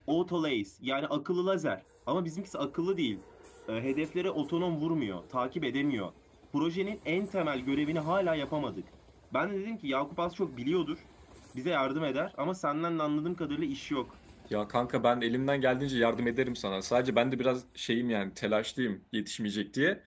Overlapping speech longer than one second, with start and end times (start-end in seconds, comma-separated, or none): none